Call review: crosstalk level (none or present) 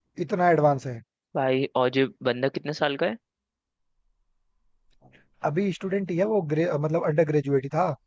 none